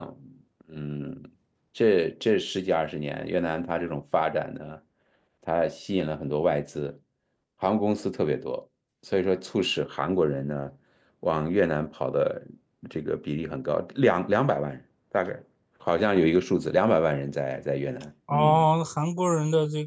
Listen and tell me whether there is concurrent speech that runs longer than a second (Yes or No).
No